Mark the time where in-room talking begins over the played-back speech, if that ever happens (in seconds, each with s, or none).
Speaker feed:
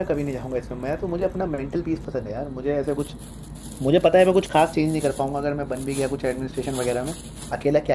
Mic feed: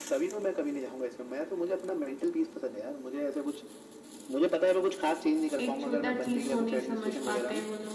5.6 s